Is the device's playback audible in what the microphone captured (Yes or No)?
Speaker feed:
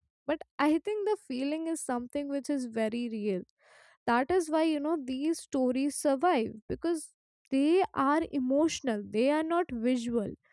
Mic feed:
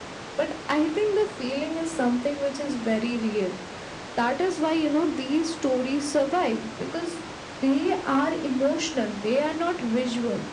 Yes